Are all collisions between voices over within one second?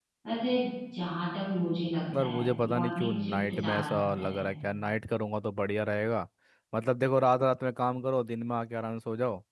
No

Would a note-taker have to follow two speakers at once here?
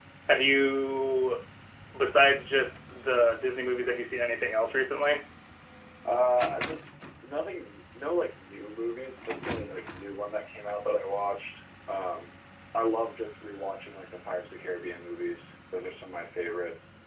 No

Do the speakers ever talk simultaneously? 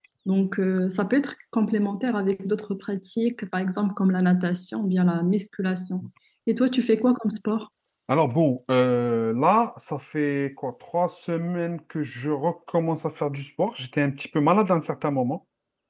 No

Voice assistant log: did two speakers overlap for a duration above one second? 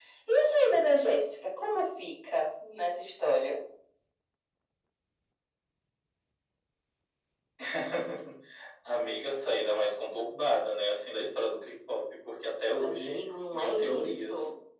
Yes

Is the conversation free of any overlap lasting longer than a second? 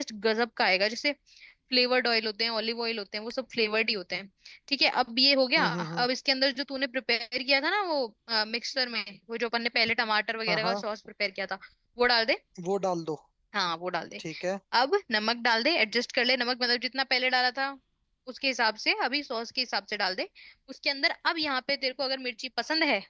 Yes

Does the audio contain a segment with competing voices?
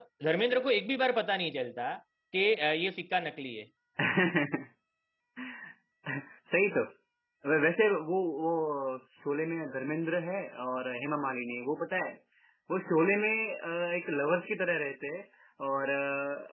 No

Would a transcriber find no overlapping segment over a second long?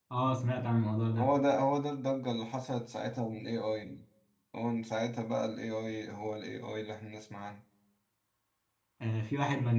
Yes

